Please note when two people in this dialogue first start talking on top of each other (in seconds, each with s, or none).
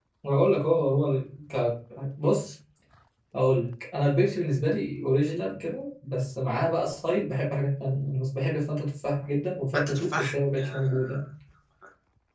9.7 s